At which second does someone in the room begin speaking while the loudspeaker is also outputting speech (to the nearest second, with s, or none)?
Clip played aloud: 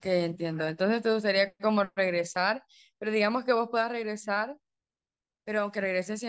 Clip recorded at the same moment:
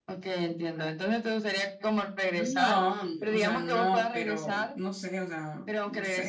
2 s